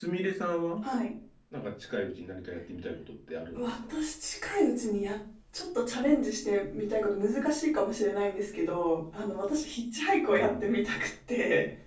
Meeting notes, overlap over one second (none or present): none